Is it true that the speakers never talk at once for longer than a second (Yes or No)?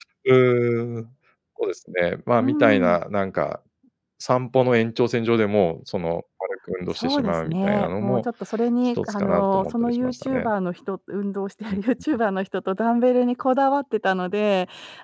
No